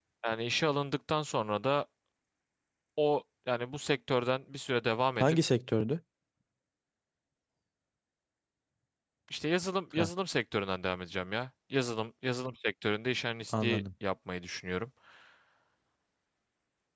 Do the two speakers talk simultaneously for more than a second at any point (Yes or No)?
No